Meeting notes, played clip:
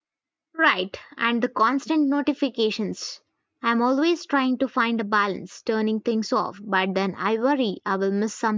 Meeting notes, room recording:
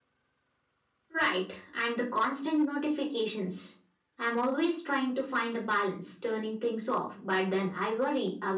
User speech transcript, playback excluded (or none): none